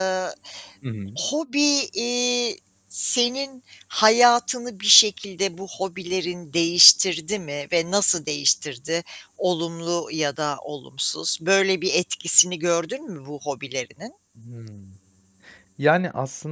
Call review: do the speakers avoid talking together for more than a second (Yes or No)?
Yes